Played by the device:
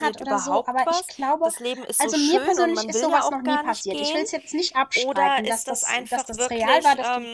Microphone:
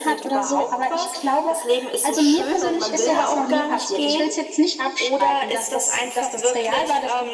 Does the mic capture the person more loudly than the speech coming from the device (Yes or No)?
No